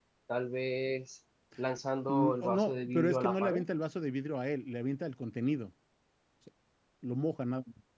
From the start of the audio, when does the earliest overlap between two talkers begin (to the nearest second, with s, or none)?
2 s